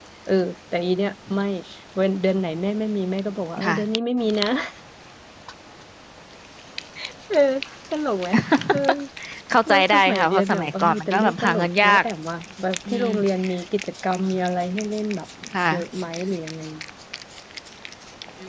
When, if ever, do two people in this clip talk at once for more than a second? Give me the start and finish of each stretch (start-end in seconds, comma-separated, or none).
9.7-12.0